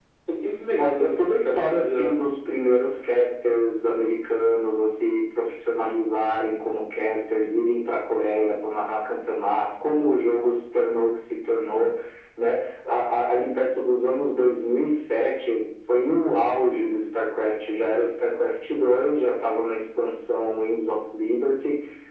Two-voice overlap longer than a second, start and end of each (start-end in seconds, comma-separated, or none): 0.7-2.2